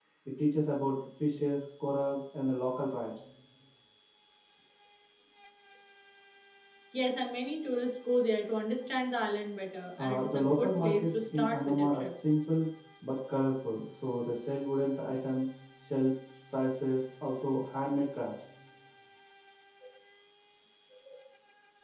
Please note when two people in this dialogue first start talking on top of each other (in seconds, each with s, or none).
10.0 s